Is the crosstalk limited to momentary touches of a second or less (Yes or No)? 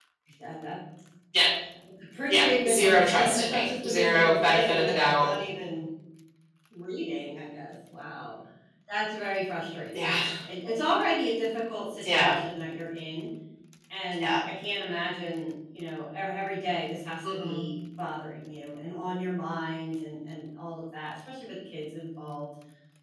No